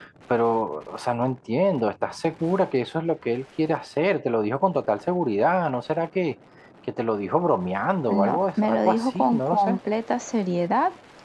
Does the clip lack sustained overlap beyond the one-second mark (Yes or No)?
No